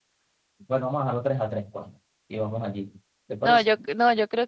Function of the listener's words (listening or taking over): taking over